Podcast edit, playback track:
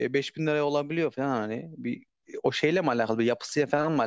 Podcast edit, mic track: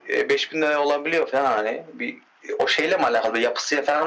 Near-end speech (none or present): none